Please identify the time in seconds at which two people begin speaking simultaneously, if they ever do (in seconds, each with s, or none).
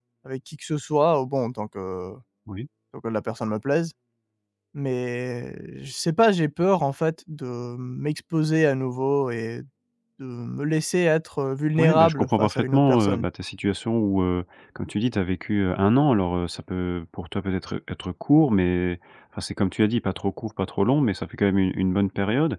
11.8 s